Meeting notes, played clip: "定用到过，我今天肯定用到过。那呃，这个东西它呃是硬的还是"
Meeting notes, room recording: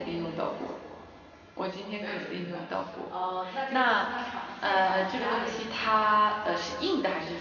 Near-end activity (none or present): present